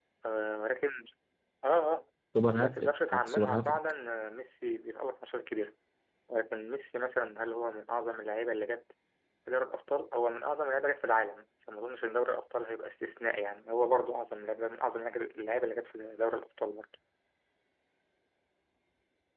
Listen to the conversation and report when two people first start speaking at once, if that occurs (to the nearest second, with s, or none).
3 s